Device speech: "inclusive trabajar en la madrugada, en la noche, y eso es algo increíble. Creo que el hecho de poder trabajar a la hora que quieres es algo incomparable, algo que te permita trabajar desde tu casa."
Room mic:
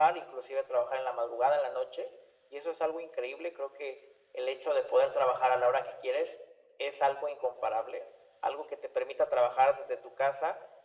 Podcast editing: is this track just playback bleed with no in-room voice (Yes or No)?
Yes